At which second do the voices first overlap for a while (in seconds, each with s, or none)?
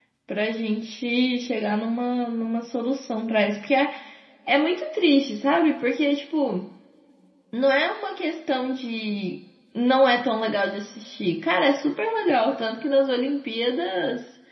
none